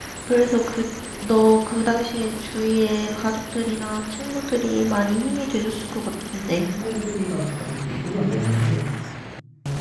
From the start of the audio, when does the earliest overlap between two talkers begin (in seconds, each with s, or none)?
none